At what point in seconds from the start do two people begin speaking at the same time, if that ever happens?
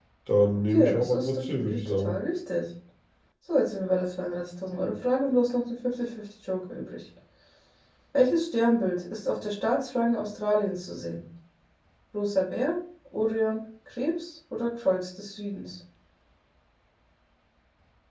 1 s

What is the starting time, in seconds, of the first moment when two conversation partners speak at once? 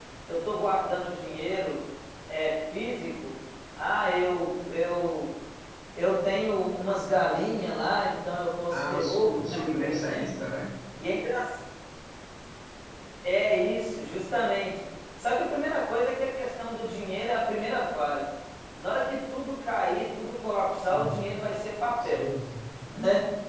9 s

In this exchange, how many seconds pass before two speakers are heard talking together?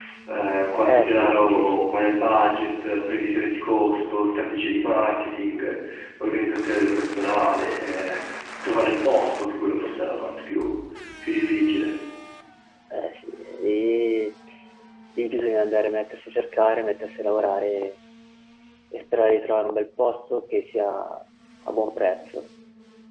1 s

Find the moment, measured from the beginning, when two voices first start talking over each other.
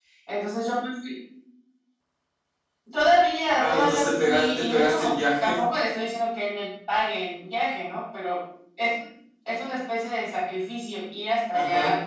4 s

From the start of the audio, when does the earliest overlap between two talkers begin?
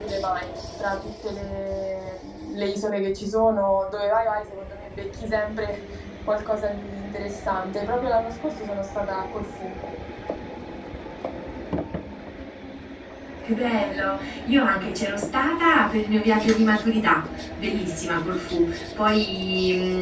none

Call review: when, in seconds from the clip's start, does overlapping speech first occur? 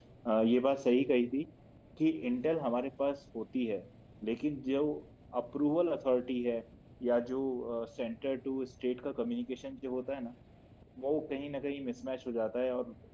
none

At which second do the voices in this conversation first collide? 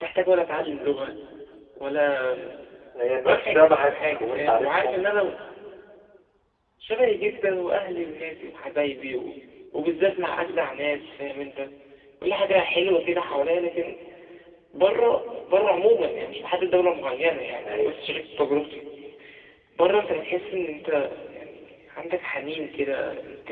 3 s

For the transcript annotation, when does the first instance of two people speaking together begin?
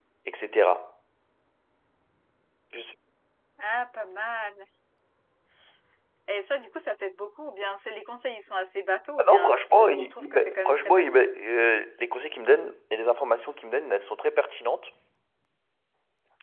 9 s

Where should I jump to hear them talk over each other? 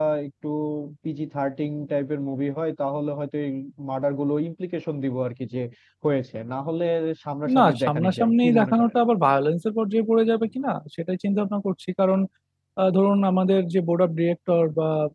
8 s

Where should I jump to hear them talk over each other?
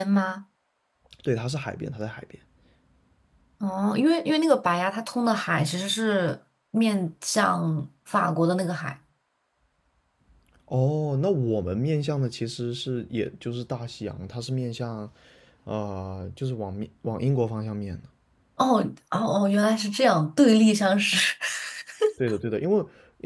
none

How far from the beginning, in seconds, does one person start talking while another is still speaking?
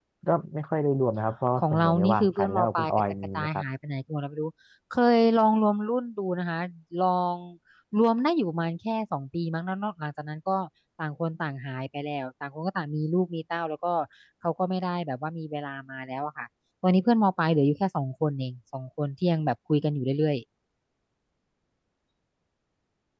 2 s

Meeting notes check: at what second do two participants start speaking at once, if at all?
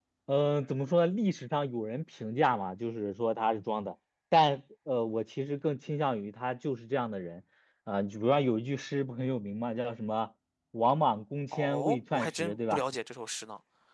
12 s

